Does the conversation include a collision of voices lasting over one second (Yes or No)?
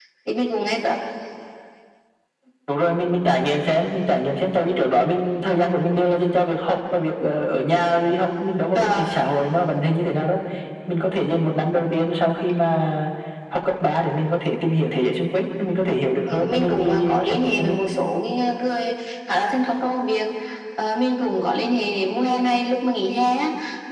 Yes